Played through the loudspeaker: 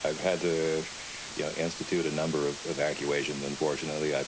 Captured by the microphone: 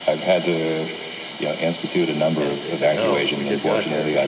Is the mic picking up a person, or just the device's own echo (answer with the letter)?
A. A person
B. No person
A